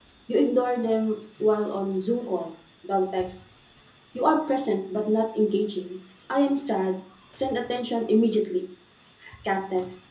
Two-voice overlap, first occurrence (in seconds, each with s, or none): none